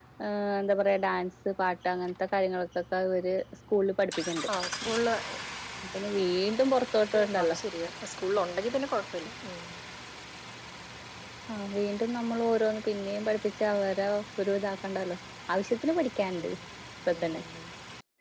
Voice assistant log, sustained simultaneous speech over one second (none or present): none